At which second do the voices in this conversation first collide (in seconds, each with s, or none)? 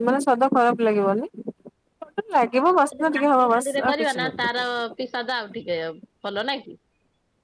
2.9 s